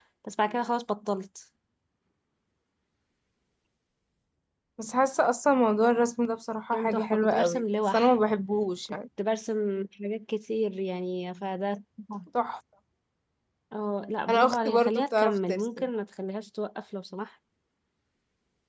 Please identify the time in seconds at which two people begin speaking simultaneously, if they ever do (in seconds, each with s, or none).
6.7 s